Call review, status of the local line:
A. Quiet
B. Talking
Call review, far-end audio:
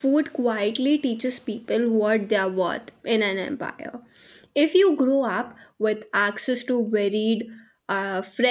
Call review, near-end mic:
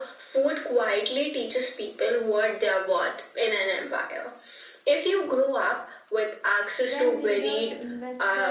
B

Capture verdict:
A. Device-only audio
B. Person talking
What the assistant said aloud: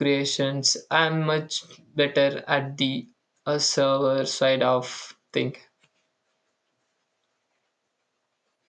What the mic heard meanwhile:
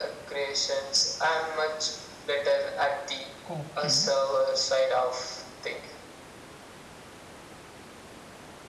B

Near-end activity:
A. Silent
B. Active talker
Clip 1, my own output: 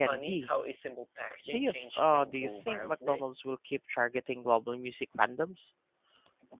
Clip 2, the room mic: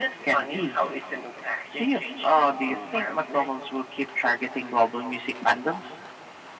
A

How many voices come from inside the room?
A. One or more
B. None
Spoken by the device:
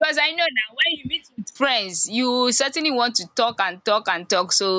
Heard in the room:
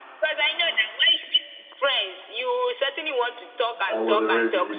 A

